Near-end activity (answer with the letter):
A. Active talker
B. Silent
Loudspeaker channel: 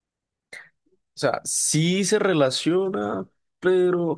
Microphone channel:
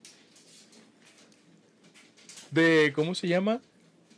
A